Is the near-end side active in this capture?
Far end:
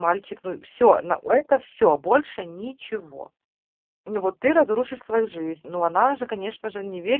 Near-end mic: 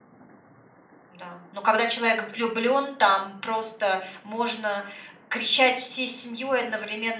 Yes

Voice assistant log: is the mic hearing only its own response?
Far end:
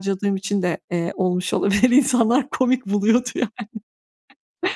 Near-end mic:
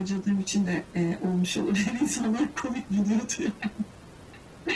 Yes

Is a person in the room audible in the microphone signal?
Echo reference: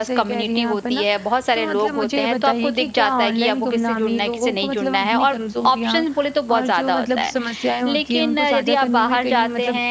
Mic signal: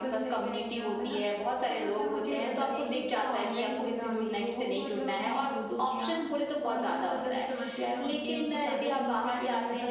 No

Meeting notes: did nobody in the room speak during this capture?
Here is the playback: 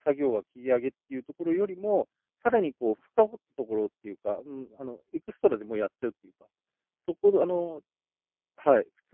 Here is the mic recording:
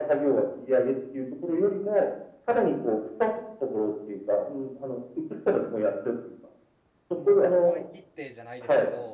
No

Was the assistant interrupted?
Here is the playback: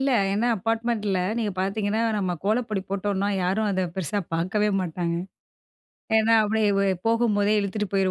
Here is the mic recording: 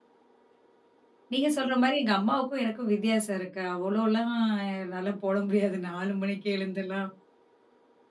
Yes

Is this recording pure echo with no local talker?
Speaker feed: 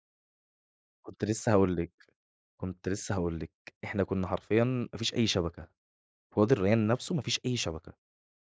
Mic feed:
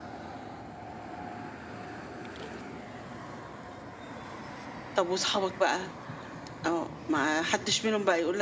No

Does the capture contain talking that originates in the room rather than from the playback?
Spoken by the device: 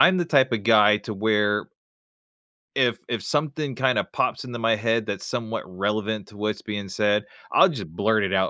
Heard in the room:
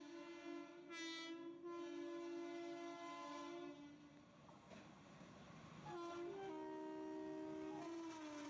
No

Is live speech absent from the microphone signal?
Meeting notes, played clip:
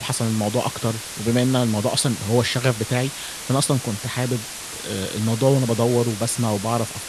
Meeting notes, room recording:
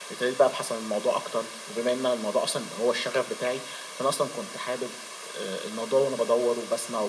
Yes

